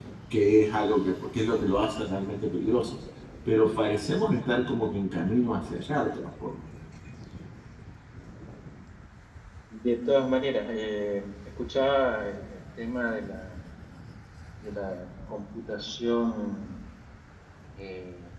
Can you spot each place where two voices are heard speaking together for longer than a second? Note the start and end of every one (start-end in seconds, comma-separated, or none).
none